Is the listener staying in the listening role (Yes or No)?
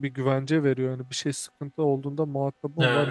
No